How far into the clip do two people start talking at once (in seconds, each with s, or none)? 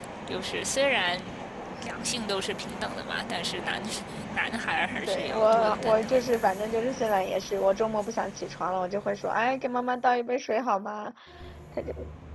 5.0 s